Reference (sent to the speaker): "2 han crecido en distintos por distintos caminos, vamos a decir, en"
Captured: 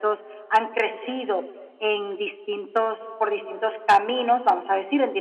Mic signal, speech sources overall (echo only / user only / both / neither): echo only